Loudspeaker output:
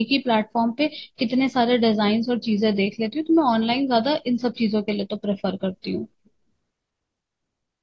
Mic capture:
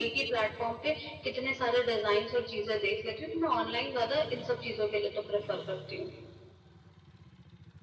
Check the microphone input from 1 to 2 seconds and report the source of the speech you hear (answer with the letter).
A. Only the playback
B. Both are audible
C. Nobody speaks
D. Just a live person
A